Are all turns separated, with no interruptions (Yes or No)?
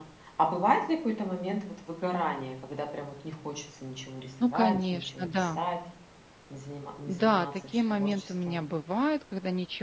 No